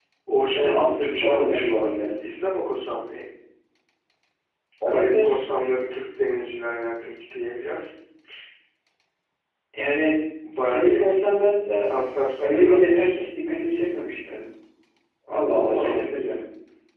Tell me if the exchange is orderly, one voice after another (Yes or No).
No